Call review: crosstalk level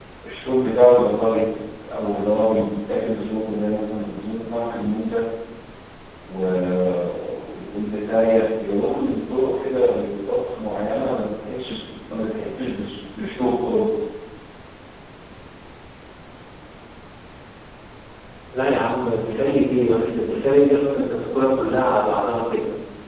none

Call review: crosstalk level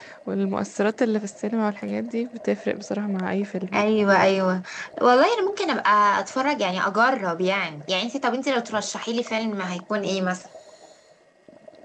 none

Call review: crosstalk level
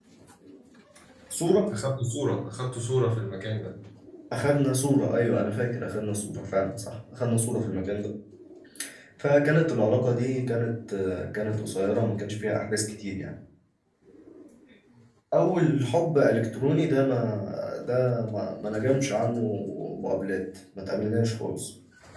none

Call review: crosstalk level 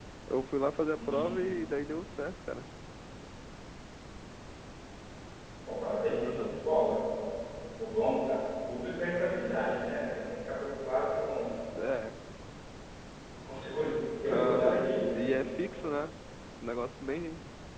present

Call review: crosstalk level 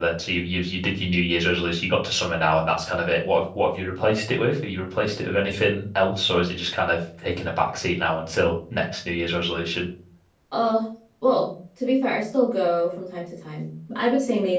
none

